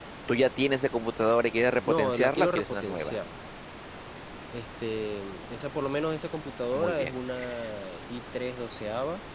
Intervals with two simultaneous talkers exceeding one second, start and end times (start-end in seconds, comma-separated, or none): 1.9-3.2